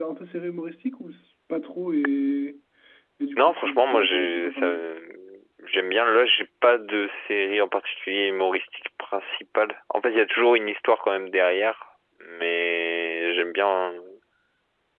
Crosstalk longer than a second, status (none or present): present